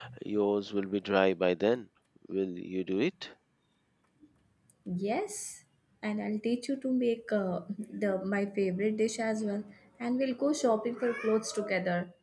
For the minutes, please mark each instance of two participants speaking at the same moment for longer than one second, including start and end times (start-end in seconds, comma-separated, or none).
none